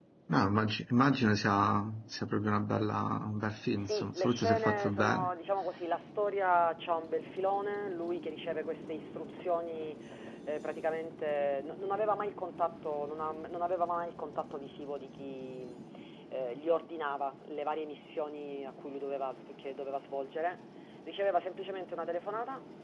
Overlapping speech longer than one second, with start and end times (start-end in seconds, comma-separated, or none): 3.8-5.3